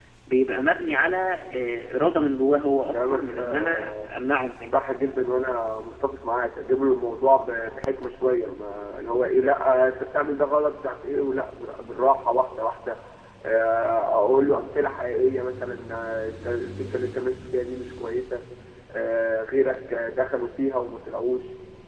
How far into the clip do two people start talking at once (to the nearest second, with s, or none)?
3 s